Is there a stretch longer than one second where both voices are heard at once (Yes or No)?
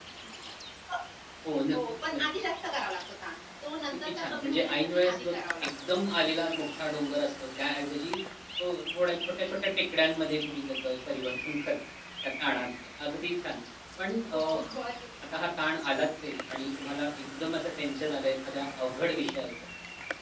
Yes